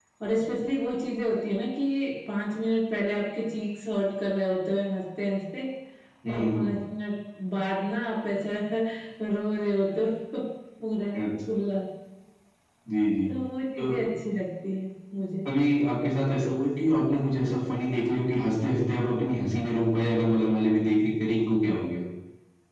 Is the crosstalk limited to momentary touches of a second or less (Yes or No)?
Yes